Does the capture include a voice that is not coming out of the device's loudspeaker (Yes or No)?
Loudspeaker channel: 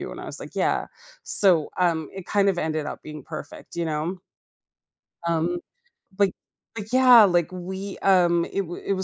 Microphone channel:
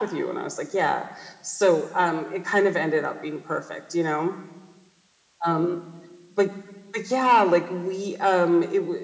No